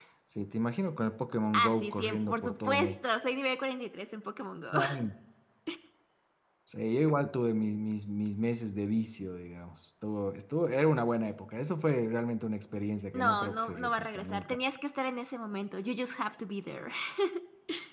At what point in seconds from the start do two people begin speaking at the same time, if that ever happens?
1.5 s

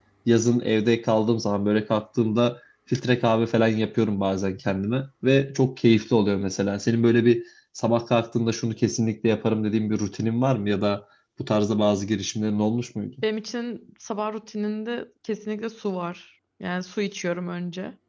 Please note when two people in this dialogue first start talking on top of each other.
none

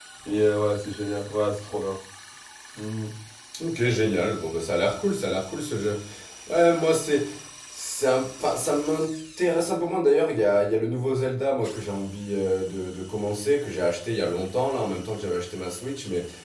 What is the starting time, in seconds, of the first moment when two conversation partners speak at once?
none

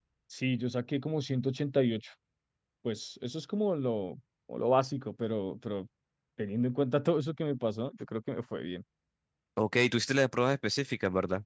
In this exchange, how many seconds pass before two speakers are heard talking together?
none

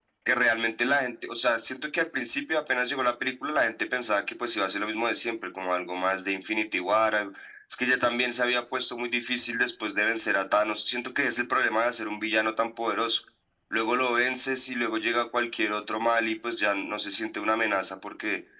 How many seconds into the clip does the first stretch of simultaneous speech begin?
none

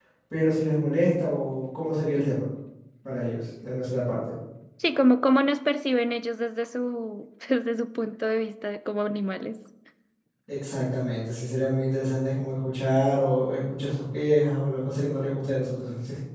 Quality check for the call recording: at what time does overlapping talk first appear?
none

